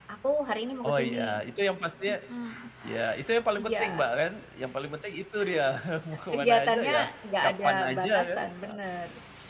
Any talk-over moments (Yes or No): Yes